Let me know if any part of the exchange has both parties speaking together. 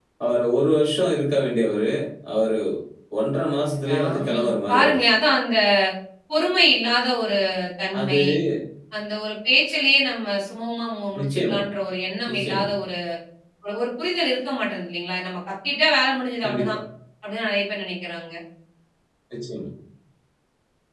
Yes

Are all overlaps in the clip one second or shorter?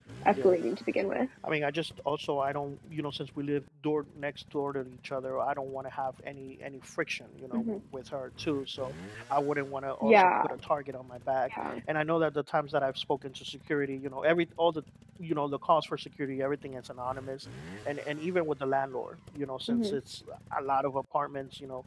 Yes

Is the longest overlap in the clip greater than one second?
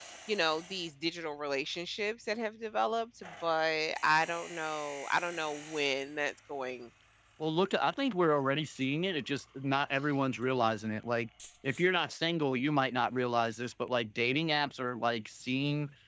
No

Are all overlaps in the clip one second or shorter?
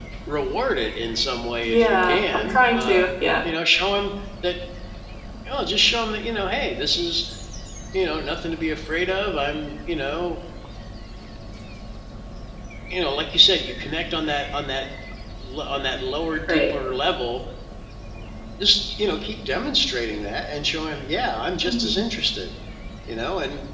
No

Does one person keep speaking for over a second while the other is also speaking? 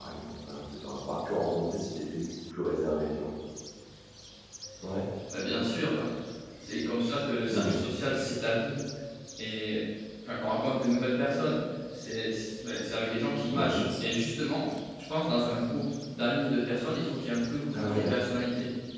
No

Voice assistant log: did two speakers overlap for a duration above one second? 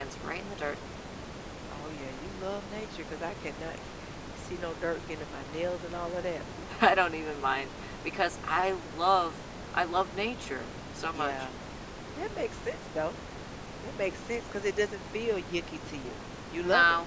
No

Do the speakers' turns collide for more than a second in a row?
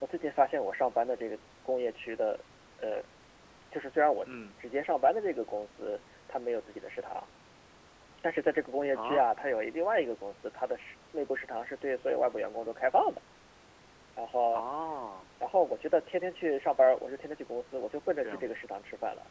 No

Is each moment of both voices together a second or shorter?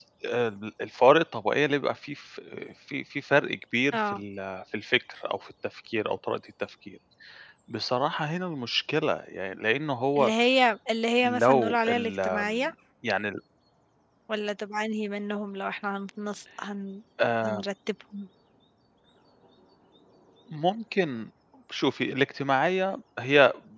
No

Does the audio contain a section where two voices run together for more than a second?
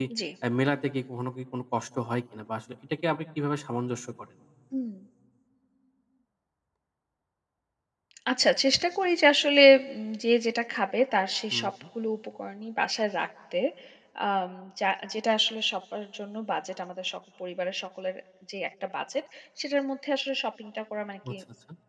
No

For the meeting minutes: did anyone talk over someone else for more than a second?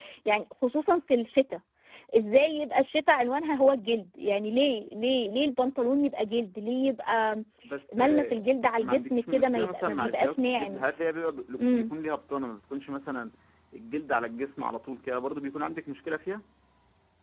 Yes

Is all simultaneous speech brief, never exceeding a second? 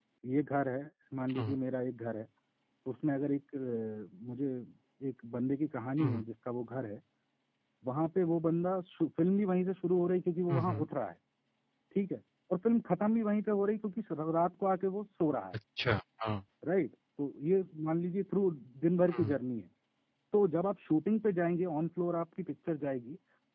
Yes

